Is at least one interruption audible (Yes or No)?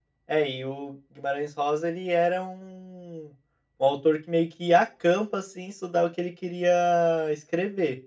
No